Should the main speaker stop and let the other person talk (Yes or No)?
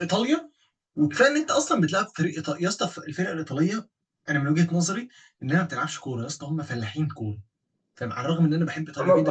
Yes